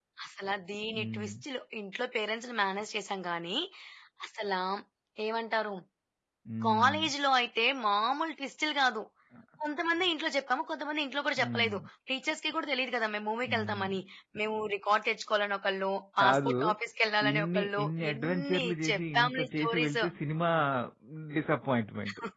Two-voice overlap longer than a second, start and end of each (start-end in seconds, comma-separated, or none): 17.3-20.0